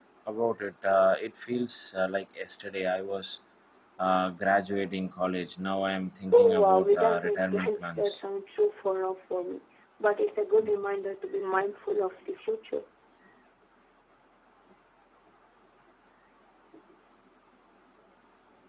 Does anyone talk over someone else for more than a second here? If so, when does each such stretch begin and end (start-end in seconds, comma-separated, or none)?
6.3-8.2